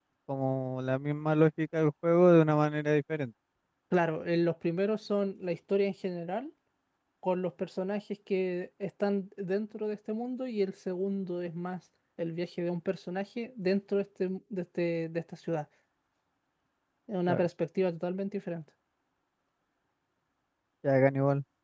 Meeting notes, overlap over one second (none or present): none